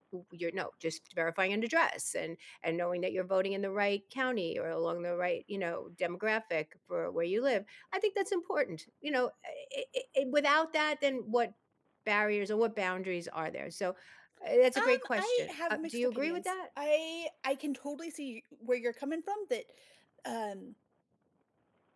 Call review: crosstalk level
present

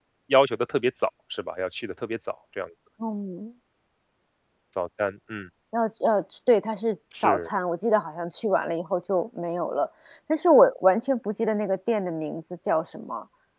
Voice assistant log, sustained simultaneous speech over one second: none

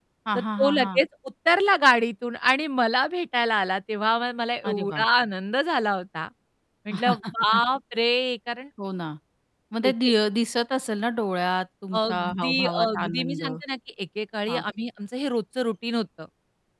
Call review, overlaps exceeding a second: present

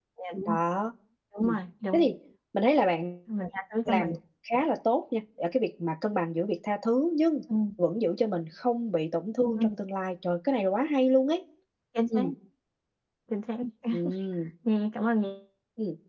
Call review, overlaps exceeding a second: none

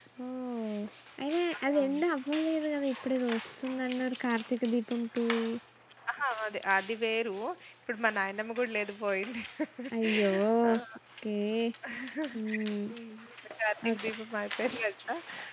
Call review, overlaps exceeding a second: none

